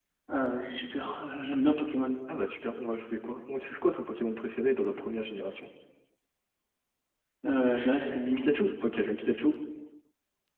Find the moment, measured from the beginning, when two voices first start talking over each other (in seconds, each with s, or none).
none